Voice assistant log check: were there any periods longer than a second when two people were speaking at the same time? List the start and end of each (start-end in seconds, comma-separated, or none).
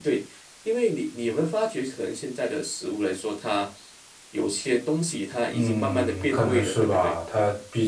5.5-7.2